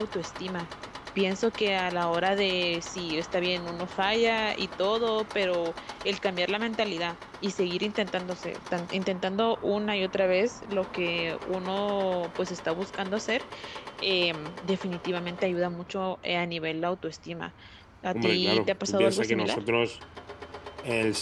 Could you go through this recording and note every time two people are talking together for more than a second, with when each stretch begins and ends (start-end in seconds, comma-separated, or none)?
18.1-19.6